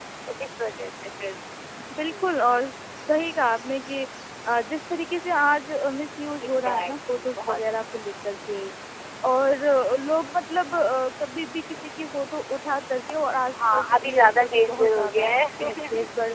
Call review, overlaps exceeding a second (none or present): present